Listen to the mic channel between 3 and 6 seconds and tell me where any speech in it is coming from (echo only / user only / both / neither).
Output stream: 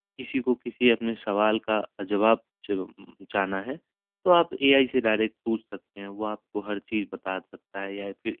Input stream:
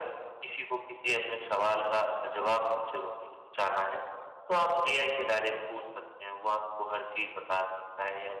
echo only